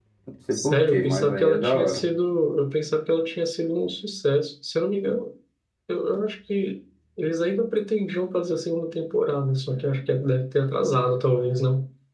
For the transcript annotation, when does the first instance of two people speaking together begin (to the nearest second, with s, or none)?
1 s